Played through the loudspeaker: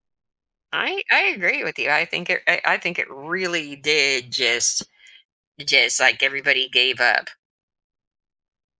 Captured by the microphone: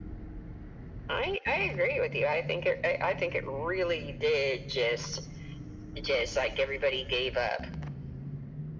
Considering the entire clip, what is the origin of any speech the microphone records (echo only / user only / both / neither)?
echo only